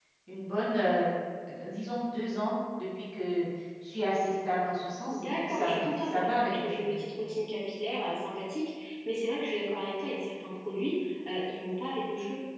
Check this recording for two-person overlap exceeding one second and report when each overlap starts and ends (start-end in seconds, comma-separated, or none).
5.1-7.0